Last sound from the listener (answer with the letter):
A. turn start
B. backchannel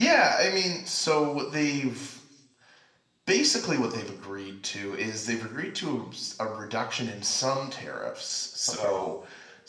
B